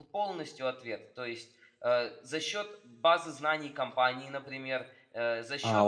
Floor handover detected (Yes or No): Yes